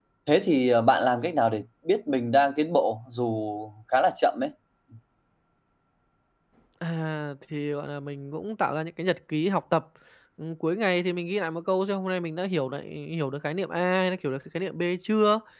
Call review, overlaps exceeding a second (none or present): none